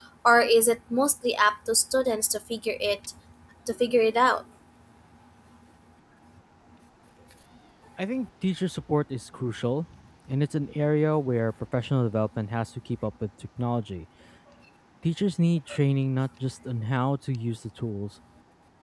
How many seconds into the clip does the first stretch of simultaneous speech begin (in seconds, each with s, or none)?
none